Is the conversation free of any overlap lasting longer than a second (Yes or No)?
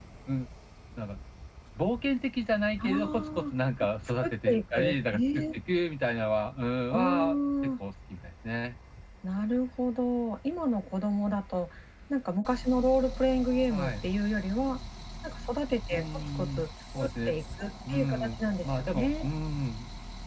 No